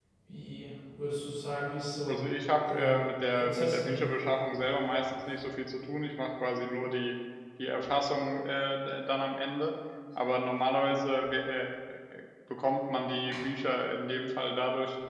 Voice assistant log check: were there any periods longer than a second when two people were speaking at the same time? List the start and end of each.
2.7-4.1

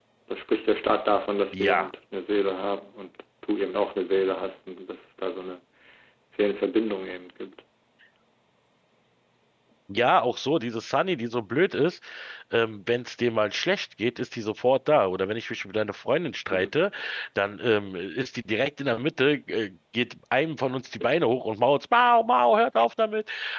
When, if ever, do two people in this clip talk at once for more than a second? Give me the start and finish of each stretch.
none

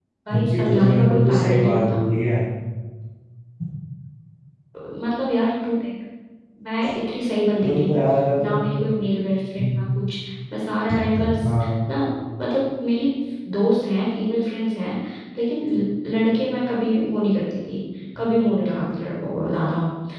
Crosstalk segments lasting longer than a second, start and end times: 0.6-2.0

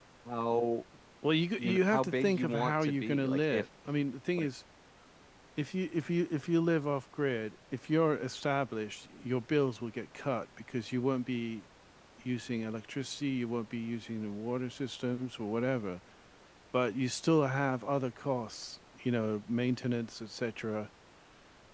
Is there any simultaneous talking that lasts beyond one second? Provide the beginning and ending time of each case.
1.6-3.6

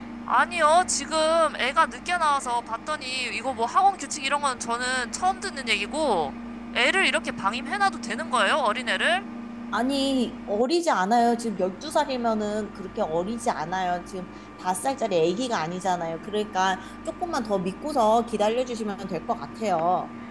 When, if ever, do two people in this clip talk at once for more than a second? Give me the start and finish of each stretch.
none

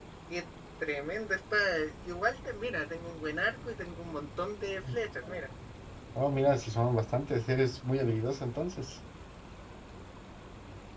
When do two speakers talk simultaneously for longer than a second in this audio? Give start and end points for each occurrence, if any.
none

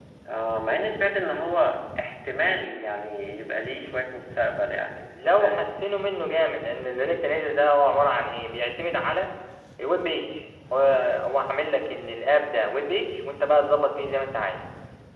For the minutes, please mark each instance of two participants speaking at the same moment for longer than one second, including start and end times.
none

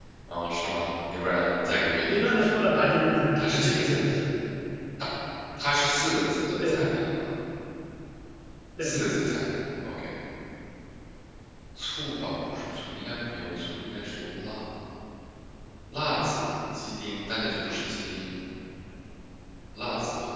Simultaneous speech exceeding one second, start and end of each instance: 2.0-4.0

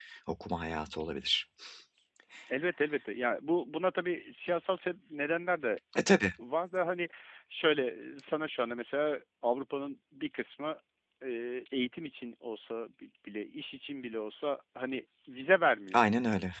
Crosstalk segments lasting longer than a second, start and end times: none

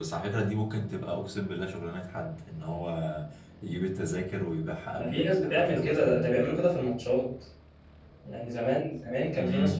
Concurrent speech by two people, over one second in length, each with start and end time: 5.0-6.5

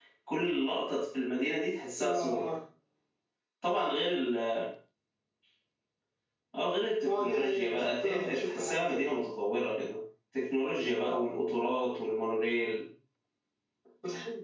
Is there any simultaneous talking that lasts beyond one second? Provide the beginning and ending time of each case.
7.0-9.2

